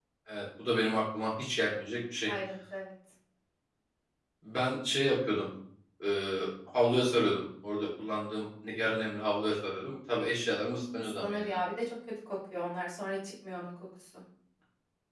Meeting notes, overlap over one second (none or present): none